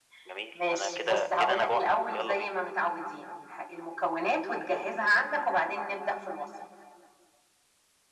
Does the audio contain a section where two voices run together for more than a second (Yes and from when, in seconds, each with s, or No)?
Yes, from 0.5 s